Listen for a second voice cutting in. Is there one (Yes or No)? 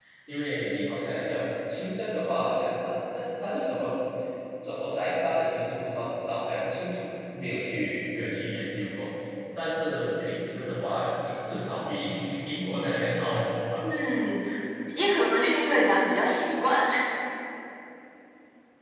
No